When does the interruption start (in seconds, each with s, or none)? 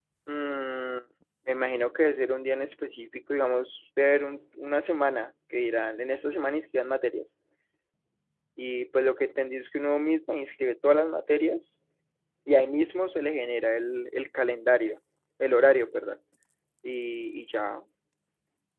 none